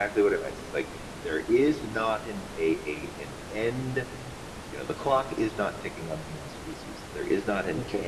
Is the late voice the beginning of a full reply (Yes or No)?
Yes